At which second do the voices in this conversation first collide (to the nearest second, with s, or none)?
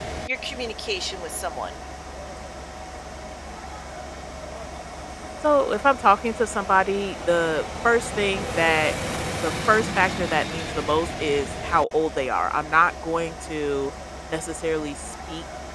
none